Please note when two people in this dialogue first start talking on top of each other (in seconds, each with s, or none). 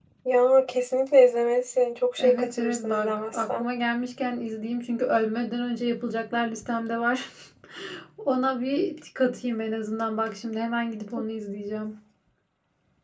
2.2 s